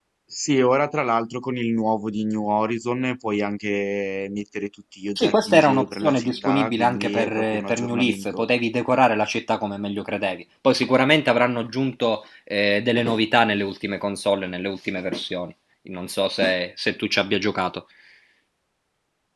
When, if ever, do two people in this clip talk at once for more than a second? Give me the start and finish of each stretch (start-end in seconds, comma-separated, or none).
5.2-8.5